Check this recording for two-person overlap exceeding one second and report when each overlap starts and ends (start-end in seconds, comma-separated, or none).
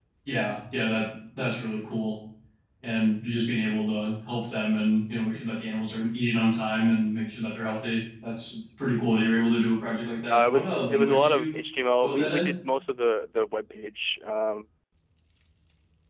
10.3-11.6